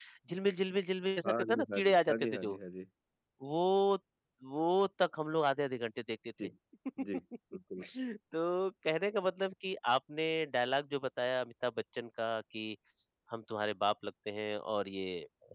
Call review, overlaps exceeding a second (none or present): present